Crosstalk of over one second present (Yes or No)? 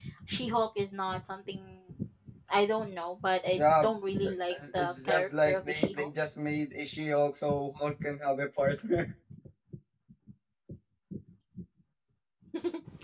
Yes